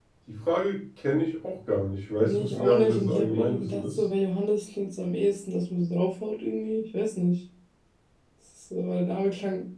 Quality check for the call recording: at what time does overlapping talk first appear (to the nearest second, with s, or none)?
2 s